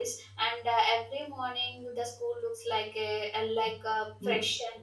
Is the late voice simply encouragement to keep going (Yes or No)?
No